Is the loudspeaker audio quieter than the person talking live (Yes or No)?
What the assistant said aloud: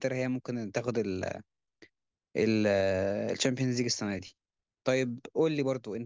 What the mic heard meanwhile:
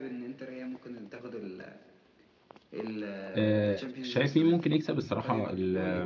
Yes